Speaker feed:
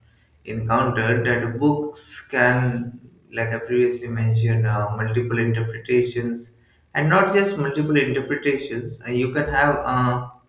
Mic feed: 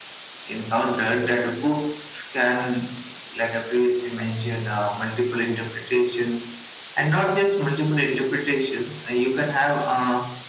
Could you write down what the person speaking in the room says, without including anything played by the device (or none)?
none